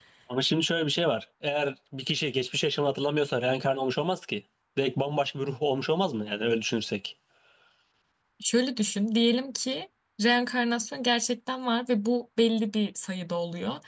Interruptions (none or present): none